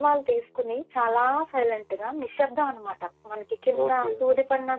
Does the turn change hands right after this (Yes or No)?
Yes